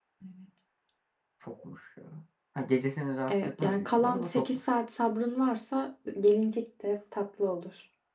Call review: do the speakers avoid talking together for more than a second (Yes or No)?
No